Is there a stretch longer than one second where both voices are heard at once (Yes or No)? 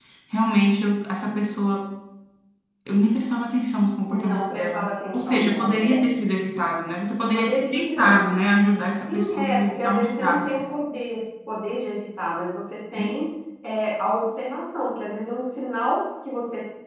Yes